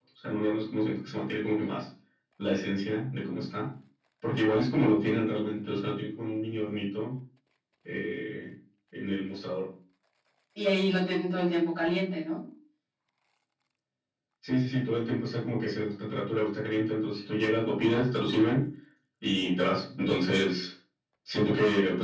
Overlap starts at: none

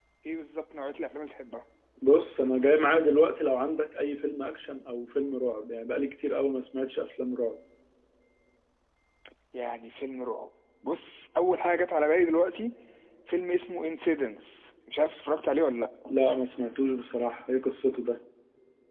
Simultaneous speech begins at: none

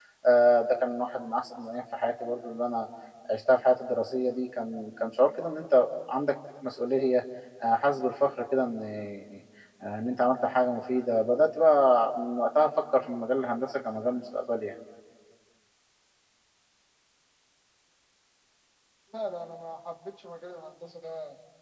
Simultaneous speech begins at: none

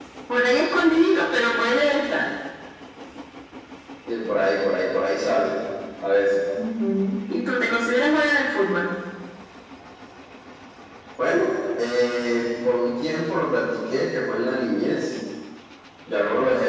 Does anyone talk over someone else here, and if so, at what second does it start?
none

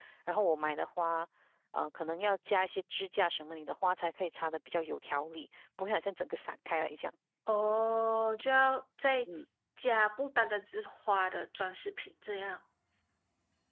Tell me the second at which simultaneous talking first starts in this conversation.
none

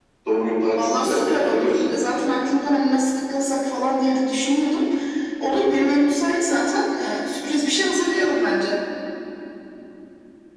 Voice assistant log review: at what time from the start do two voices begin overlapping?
0.8 s

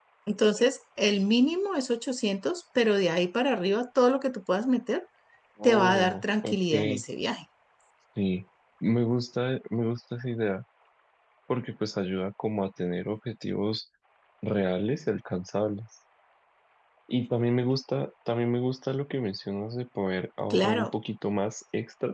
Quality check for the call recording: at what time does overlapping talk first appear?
5.6 s

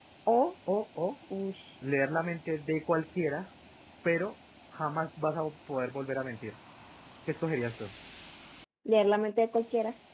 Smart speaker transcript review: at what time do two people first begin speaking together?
none

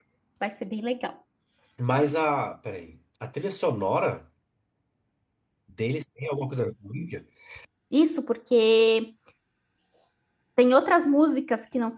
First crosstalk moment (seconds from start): none

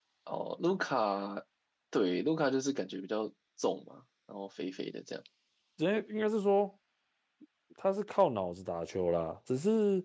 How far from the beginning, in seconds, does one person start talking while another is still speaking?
none

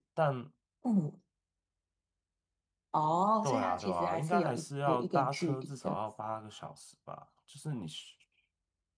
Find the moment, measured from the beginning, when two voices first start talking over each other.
3.4 s

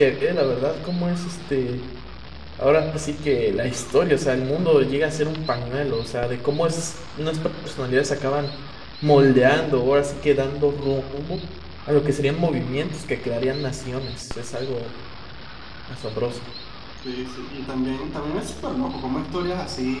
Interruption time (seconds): none

